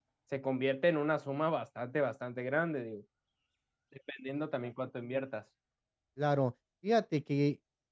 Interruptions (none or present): none